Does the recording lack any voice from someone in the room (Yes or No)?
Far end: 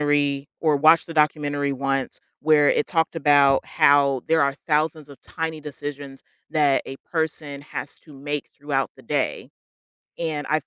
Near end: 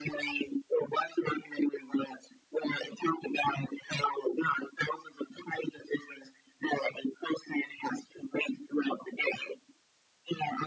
Yes